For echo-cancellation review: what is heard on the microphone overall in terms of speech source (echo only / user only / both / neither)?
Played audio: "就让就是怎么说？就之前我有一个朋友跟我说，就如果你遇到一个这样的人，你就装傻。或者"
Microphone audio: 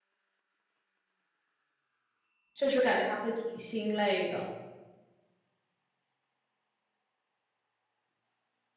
user only